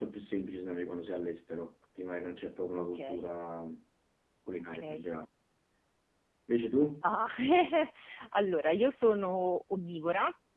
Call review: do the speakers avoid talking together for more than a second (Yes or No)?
Yes